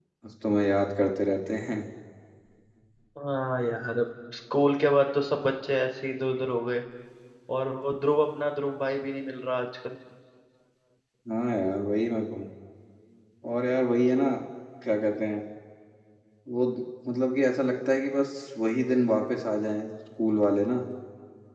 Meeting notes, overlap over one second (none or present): none